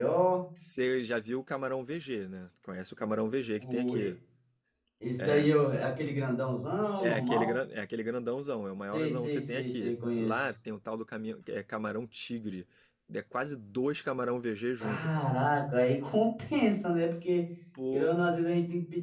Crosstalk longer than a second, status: present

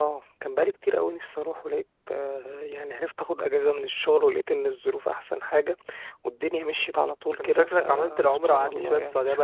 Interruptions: present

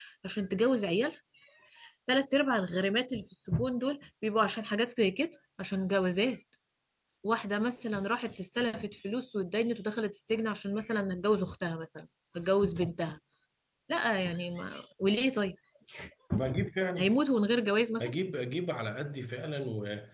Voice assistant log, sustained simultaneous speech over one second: none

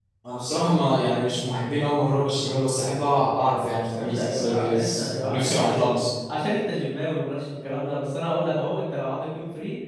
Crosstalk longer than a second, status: present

